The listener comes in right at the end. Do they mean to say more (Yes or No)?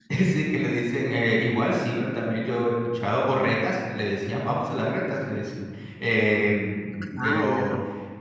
No